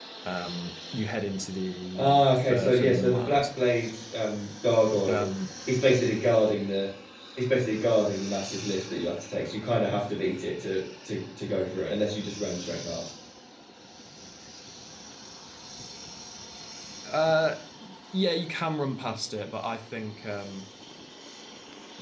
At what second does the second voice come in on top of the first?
2.0 s

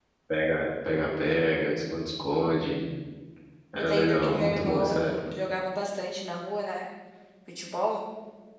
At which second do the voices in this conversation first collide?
3.8 s

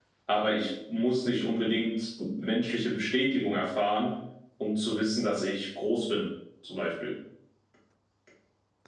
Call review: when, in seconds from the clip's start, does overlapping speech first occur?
none

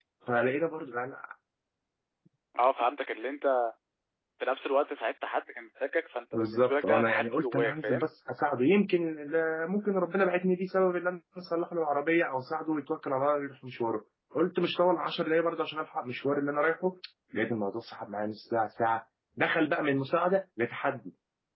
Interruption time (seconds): 6.3 s

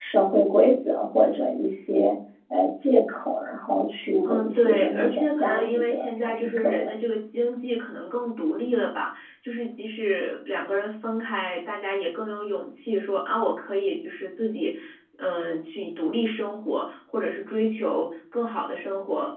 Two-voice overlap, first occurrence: 4.2 s

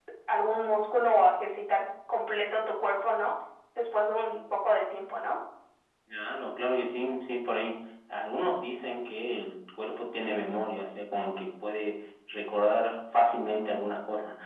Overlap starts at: none

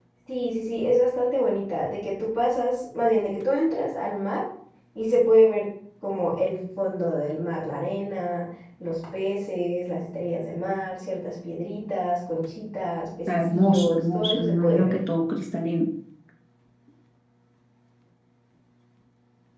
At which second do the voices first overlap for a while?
13.3 s

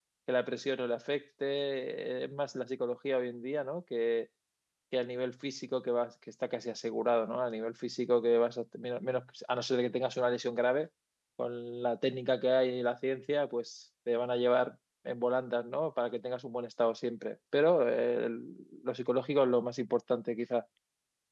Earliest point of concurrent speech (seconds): none

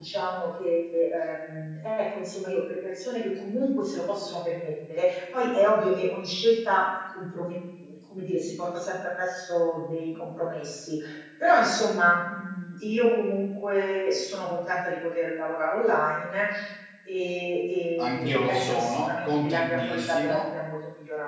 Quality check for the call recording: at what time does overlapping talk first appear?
18.0 s

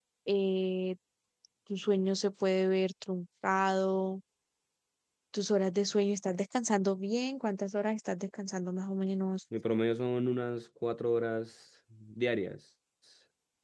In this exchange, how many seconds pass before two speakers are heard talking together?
none

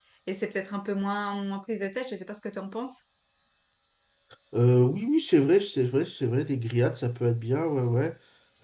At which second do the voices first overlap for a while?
none

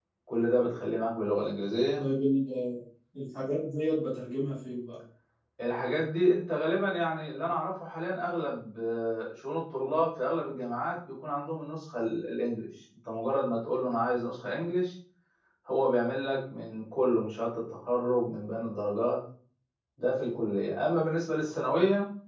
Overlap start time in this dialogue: none

